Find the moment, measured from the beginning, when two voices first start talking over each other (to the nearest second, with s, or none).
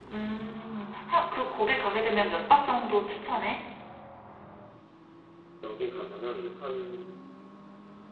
none